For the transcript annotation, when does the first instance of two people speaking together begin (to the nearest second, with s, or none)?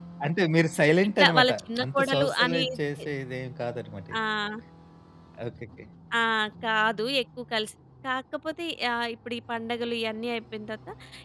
1 s